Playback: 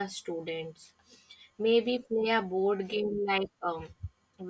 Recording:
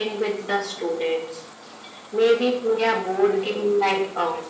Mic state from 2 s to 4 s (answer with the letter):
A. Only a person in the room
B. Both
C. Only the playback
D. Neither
C